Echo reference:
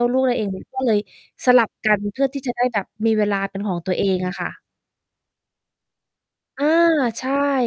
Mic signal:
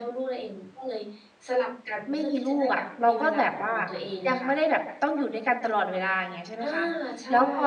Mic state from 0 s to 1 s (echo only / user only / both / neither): echo only